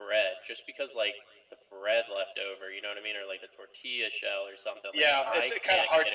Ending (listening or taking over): taking over